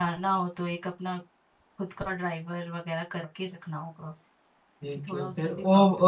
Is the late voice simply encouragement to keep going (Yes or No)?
No